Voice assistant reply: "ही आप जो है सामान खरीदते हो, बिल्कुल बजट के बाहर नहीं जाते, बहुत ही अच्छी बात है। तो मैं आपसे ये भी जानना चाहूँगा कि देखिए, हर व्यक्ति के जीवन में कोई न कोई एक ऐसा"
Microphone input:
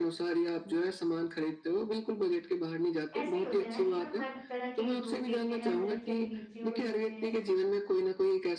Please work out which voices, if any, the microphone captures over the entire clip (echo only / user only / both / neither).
both